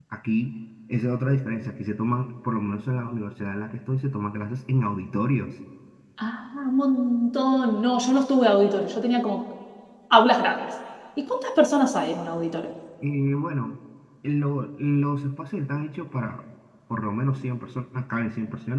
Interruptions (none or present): none